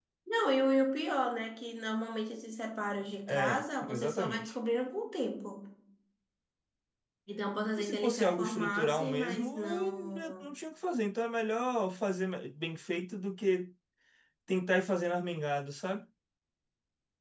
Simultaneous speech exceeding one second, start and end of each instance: 3.3-4.5, 7.8-10.5

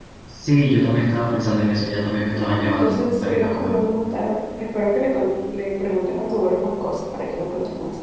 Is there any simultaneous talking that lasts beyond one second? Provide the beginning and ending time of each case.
2.3-3.7

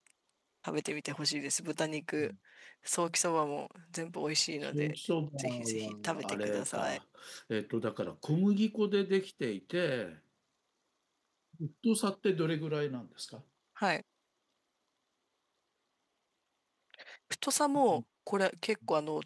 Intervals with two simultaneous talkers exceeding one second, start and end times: 5.4-7.0

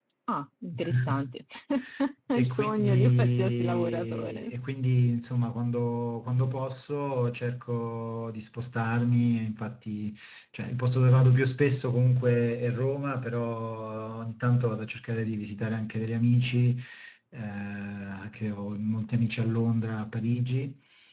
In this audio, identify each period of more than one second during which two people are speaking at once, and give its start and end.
2.4-4.5

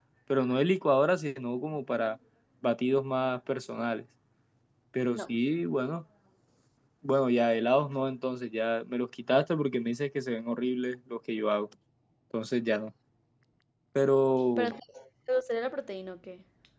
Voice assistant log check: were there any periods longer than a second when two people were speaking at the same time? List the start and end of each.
none

